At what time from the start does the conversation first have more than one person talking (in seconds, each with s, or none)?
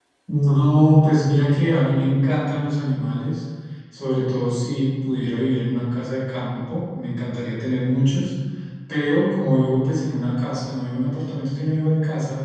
none